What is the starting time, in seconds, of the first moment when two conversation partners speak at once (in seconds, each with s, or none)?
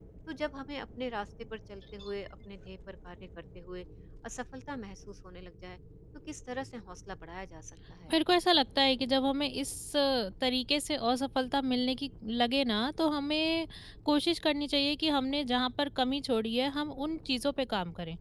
none